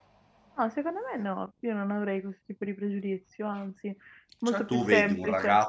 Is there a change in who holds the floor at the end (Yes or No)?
Yes